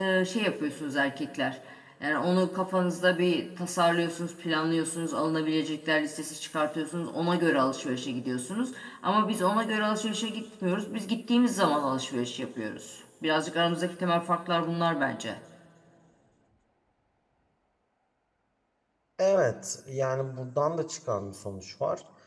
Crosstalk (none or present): none